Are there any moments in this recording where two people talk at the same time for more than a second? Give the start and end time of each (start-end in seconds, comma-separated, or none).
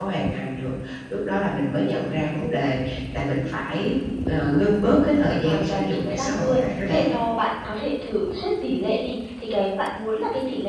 5.4-7.0